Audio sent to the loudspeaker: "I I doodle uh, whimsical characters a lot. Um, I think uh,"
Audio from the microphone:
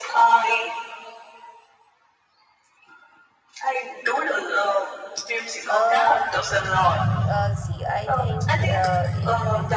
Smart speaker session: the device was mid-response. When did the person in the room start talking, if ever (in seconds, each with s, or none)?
5.7 s